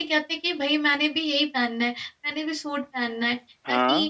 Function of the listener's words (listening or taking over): listening